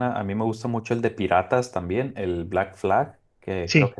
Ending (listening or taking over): listening